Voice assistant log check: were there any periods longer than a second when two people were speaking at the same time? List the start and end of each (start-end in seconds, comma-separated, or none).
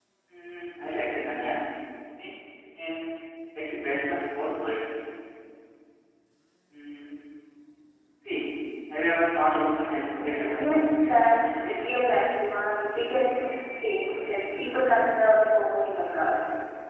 10.2-11.8